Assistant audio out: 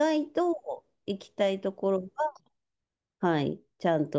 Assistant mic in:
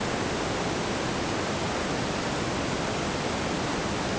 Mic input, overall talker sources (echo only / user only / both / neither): neither